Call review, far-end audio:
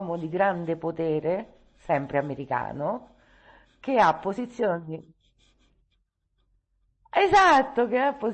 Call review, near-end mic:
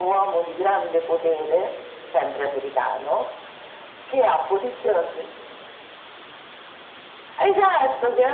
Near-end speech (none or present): none